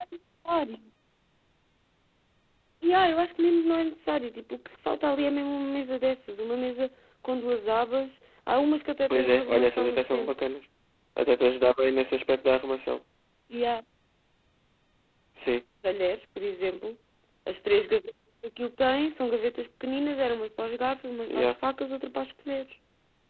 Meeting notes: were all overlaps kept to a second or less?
No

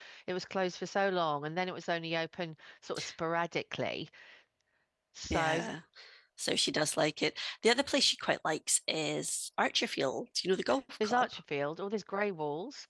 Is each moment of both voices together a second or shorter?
Yes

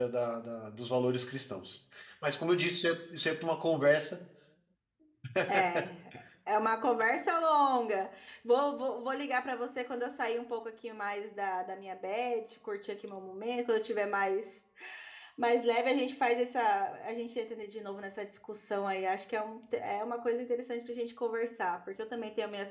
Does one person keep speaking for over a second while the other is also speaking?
No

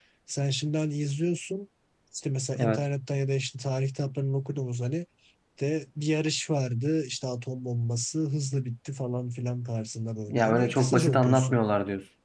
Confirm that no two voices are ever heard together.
No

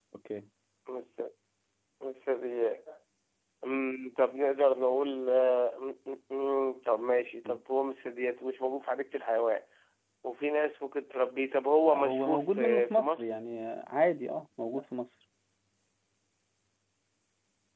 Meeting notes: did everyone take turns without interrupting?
No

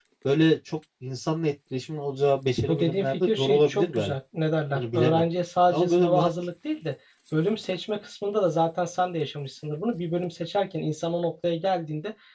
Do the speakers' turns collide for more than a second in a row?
Yes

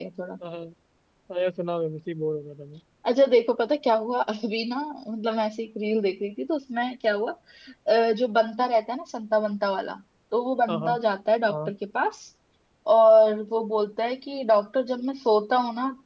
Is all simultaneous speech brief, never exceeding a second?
Yes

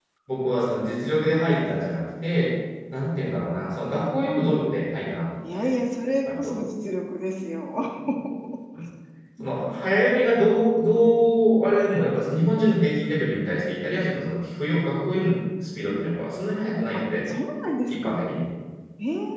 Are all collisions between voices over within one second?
Yes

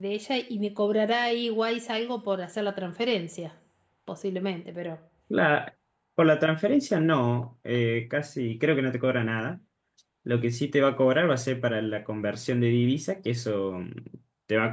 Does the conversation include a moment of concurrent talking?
No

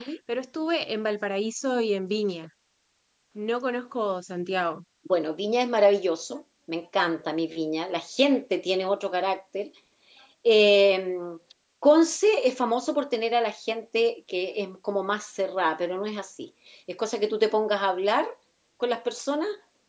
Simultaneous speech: No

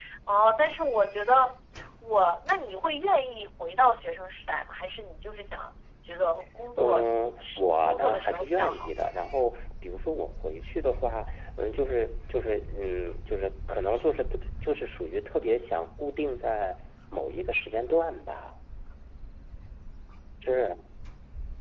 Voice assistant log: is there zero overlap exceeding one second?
No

